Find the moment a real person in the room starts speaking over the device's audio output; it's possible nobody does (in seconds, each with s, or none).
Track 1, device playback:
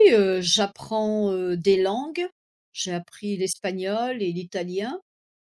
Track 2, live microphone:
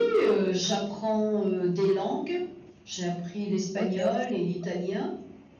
3.7 s